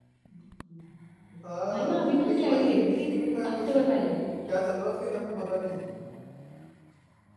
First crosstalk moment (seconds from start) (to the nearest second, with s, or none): 2 s